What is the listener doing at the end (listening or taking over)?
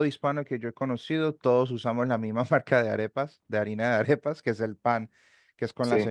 listening